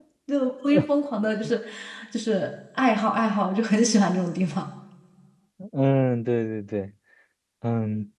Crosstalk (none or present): none